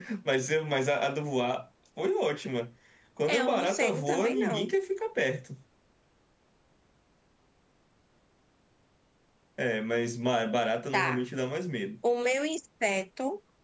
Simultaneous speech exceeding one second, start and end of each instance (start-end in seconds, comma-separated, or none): 3.3-4.7